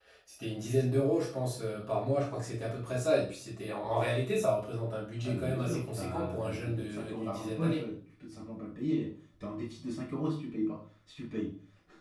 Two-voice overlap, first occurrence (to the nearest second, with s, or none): 5 s